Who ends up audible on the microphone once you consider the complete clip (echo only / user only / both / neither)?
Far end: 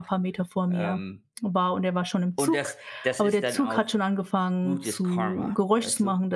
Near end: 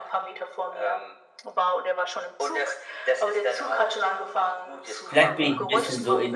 both